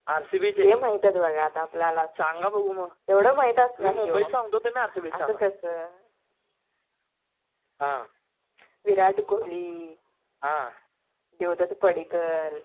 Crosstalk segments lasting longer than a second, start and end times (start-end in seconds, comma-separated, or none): none